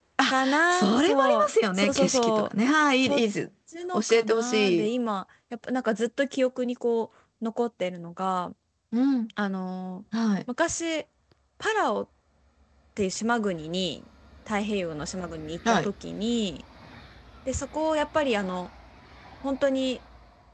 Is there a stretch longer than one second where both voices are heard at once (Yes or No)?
Yes